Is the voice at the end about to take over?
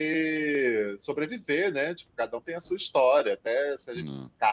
No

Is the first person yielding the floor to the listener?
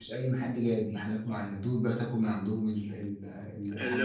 Yes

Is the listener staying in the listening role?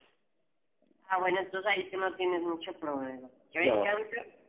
Yes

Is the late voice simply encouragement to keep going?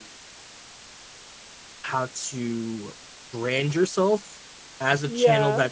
Yes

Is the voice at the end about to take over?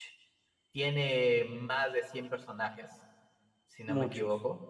No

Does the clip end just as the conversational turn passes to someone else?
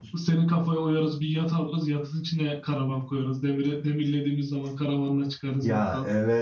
Yes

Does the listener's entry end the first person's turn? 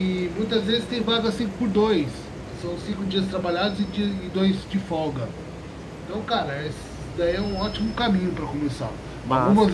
No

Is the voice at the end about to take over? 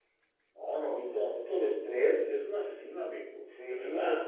Yes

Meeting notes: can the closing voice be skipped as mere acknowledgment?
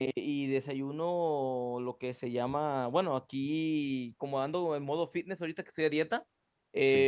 Yes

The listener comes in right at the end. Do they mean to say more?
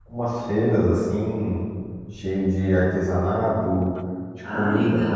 No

